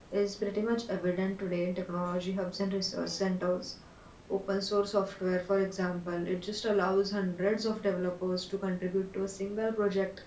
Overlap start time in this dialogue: none

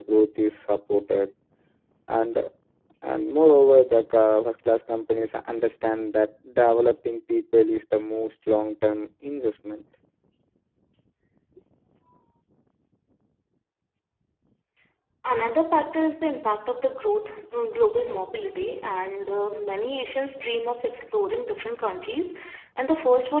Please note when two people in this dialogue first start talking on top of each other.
none

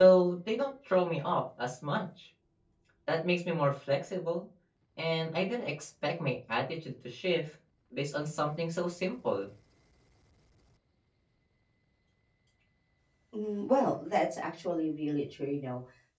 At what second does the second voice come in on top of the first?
none

